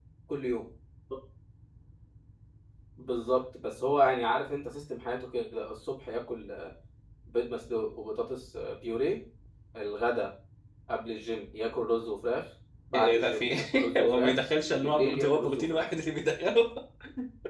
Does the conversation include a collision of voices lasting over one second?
Yes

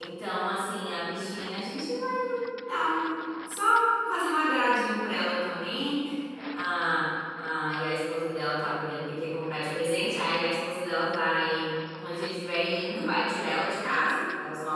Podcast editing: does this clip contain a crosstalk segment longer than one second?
No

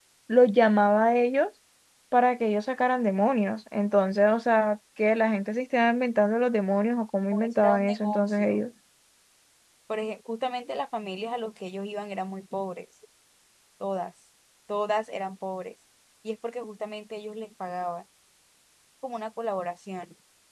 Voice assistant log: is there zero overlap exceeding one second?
No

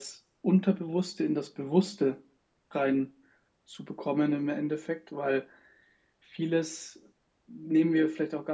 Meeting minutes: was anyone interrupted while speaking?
No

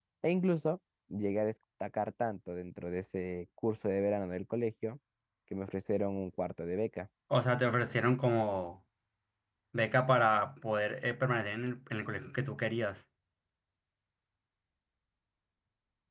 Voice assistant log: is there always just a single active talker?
Yes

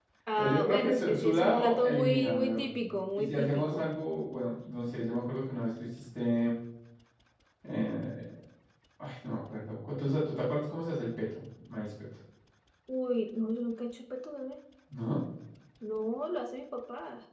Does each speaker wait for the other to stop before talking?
No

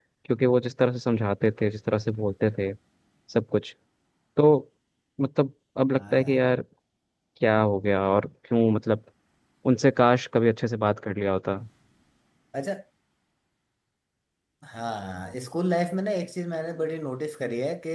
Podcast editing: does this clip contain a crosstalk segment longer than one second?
No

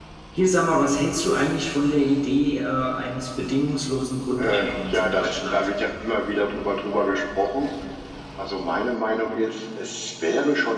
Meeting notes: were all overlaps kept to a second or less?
No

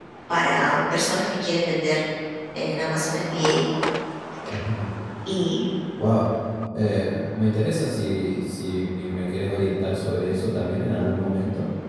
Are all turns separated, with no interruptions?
Yes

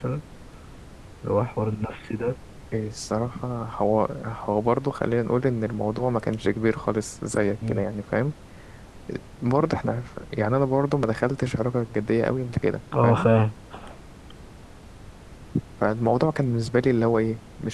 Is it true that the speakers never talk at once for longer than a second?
Yes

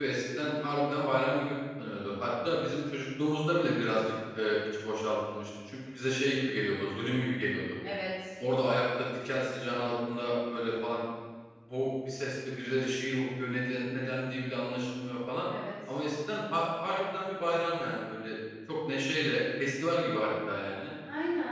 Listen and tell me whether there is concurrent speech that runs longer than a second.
No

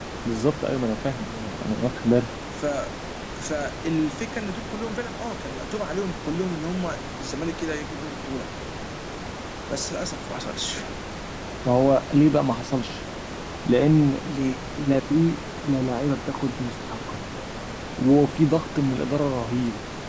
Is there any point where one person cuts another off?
No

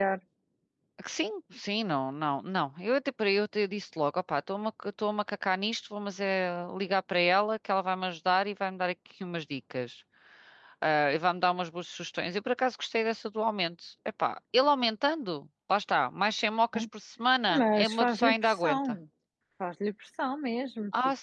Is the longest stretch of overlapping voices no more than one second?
No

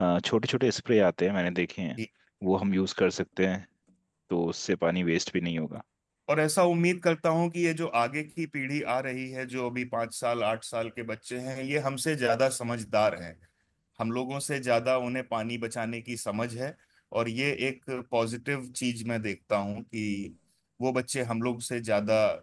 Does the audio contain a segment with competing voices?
No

